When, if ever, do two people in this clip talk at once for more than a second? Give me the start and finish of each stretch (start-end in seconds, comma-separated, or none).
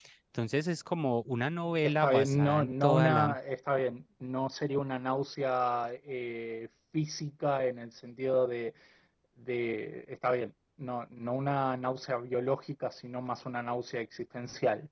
1.8-3.3